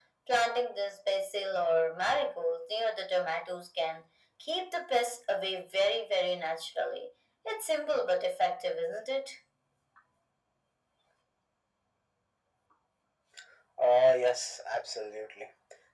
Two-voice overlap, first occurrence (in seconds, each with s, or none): none